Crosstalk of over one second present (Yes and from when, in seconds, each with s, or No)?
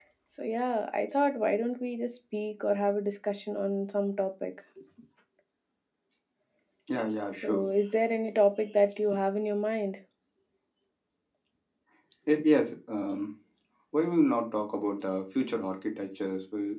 No